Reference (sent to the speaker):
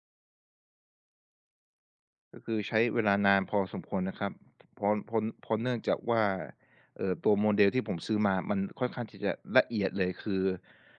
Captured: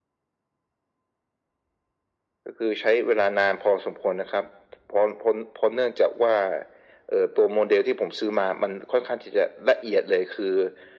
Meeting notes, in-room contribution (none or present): none